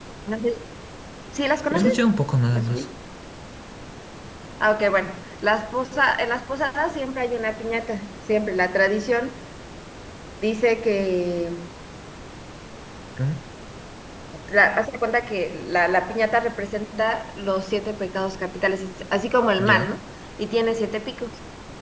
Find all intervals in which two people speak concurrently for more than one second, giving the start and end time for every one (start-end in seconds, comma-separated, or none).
none